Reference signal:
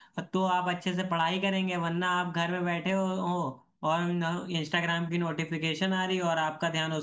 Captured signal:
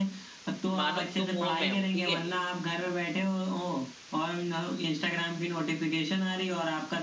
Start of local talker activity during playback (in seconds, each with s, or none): 0.7 s